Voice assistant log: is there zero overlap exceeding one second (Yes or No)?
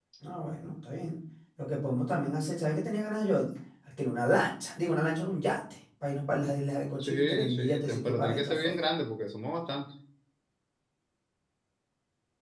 No